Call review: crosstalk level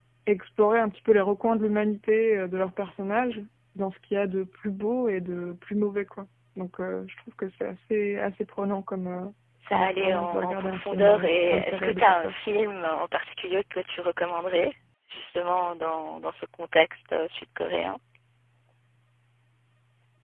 present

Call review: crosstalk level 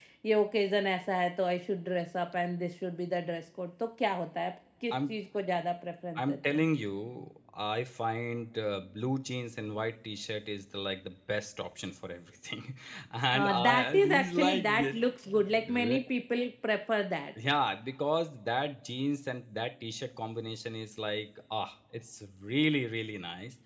present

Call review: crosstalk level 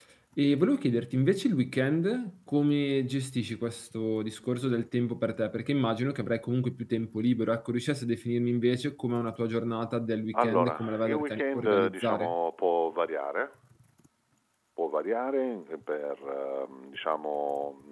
present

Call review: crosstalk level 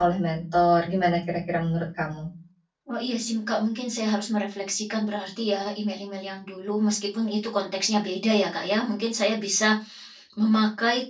none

